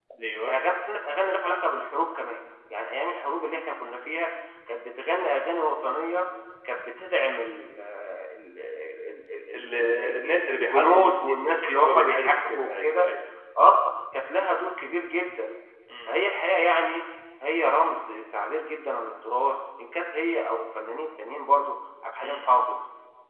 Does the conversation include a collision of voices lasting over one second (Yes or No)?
Yes